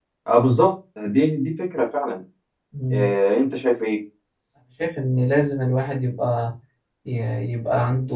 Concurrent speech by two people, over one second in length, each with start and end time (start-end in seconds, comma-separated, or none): none